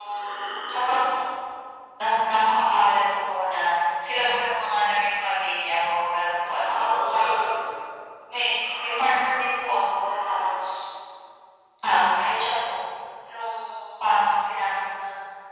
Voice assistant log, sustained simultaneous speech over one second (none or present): present